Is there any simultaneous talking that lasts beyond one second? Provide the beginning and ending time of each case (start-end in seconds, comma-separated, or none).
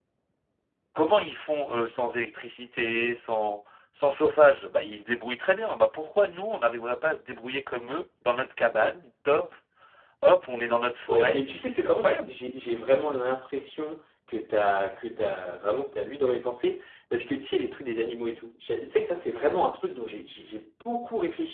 11.1-12.3